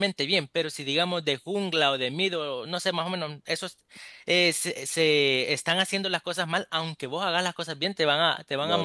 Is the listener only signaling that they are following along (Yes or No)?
No